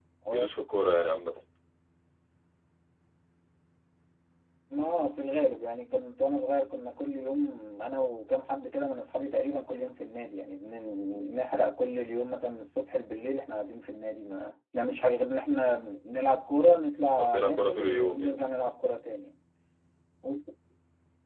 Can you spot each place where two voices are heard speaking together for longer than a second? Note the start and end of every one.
17.2-18.4

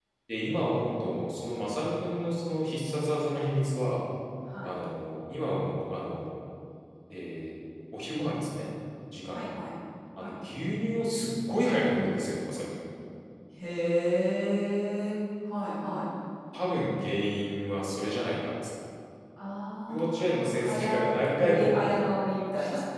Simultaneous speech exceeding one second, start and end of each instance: 19.9-21.7

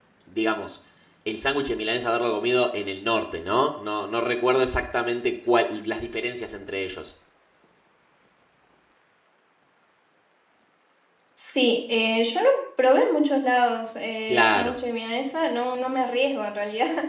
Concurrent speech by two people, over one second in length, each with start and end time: none

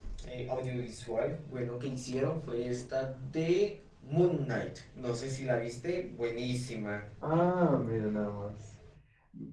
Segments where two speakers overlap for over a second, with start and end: none

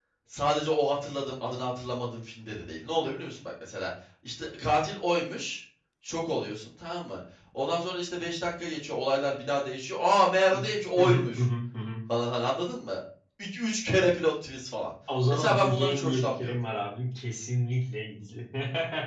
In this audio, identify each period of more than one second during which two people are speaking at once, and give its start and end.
15.3-16.6

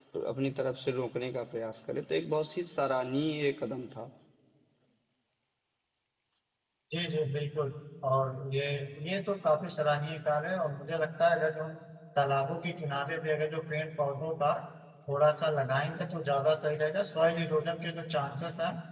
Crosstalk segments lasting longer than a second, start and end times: none

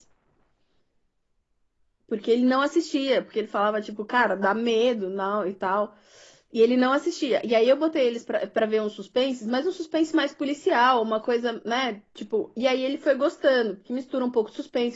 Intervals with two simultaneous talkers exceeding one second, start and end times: none

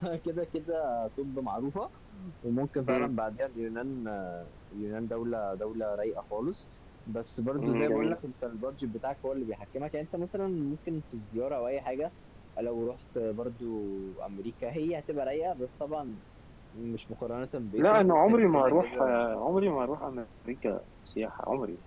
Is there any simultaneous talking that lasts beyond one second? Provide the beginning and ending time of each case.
17.8-19.0

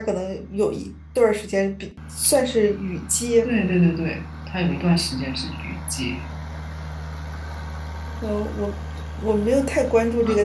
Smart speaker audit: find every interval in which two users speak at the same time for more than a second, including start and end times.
none

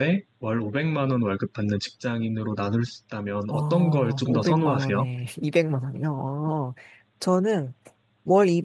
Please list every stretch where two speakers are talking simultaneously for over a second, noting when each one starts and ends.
3.5-5.0

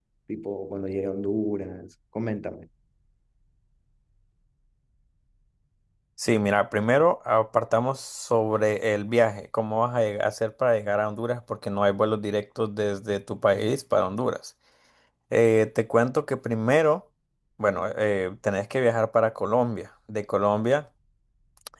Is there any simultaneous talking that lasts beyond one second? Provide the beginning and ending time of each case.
none

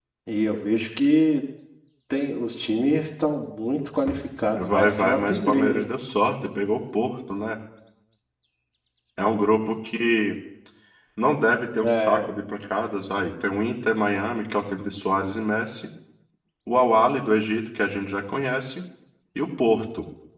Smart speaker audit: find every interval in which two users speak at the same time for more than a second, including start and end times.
4.6-5.9

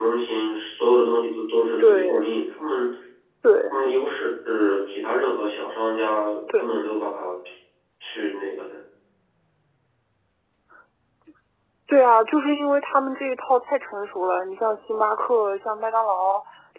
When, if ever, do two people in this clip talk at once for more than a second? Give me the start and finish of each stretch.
none

